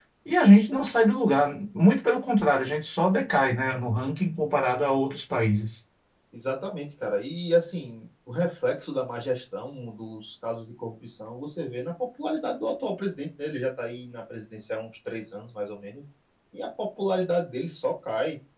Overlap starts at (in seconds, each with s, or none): none